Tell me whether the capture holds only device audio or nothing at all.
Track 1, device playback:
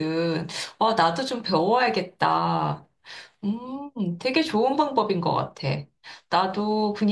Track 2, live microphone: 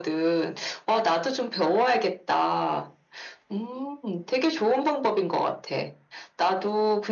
Yes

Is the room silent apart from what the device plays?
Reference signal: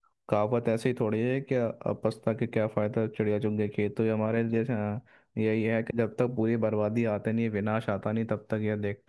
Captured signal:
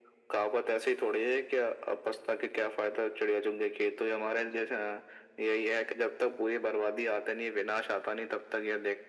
Yes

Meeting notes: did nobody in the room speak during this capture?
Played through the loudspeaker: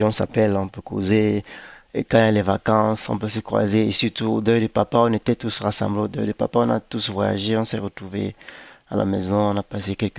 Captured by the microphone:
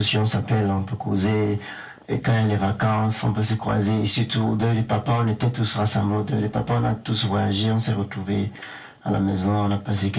Yes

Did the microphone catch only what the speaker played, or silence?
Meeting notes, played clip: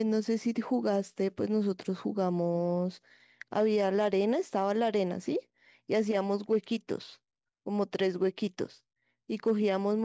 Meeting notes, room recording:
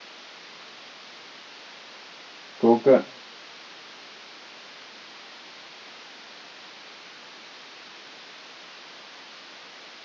No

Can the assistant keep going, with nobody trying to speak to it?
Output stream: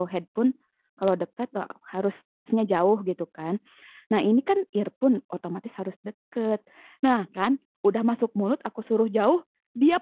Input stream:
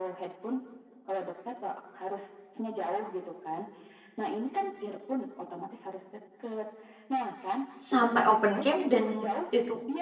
No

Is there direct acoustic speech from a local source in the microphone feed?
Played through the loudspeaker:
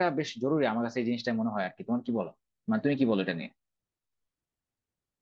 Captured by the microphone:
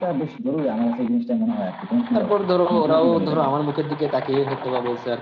Yes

